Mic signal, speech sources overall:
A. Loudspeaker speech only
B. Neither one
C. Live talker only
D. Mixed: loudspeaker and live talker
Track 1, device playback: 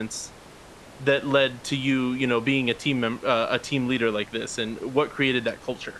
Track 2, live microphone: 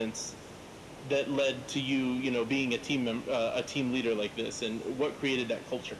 A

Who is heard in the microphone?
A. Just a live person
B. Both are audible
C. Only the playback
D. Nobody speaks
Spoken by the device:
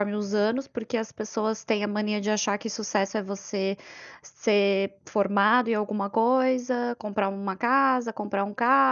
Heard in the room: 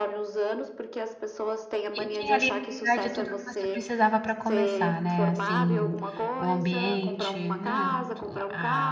B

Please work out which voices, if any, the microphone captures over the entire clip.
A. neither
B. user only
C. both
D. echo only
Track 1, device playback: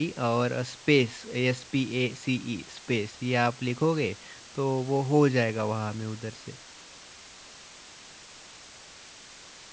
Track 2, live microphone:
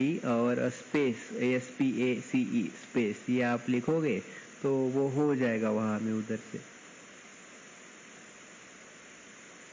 D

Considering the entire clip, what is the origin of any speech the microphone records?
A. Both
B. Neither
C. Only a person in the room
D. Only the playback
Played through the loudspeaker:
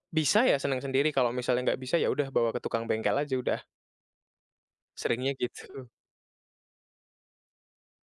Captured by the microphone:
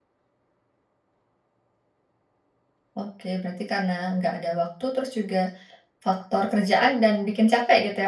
C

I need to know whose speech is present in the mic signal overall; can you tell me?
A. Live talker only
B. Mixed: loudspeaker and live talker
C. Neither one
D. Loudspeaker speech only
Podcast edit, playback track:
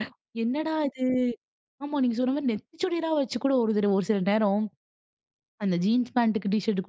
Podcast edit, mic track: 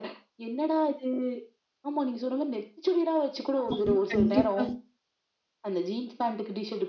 B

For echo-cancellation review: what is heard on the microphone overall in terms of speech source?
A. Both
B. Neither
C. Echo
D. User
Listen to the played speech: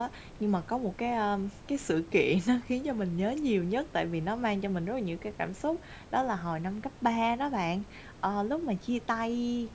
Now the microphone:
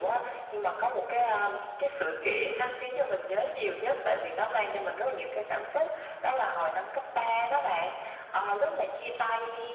C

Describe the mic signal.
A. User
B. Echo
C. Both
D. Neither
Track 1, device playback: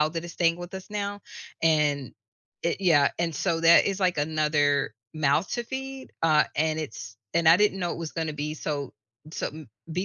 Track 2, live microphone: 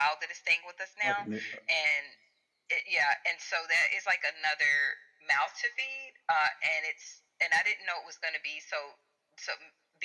C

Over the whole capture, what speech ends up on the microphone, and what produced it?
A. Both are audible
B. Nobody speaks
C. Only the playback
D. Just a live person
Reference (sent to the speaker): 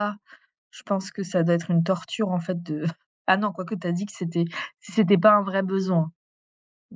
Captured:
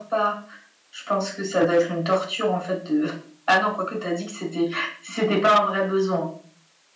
C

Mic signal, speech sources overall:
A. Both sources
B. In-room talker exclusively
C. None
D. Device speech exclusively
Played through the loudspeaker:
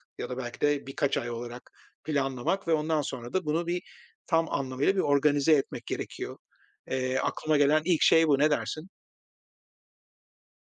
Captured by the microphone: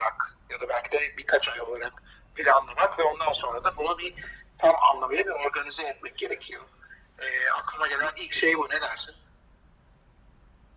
D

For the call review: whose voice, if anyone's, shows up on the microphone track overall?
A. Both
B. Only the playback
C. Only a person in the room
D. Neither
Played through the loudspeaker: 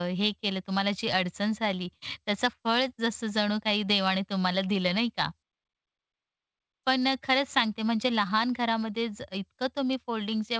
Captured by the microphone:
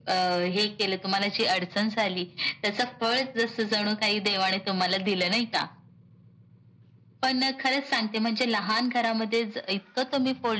B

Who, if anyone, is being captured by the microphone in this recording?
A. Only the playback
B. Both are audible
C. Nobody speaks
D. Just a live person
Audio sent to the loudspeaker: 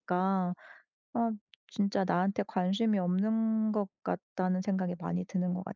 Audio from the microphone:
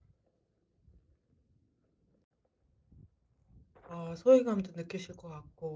D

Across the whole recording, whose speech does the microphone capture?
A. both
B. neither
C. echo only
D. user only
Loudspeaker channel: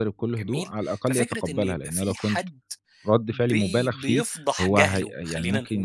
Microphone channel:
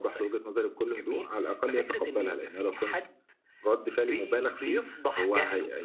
C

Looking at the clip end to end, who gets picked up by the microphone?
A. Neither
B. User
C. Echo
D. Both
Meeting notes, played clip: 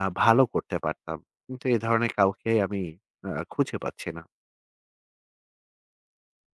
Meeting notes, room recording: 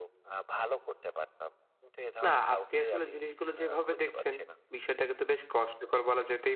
D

